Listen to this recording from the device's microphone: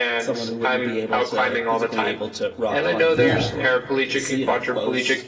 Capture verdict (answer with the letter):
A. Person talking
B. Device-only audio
A